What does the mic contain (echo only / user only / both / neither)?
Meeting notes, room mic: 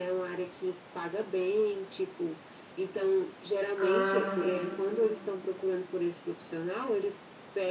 both